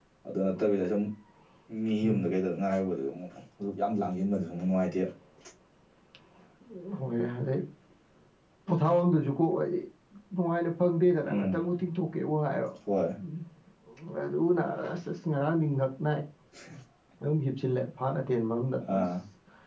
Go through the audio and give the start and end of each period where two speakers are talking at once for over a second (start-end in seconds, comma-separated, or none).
none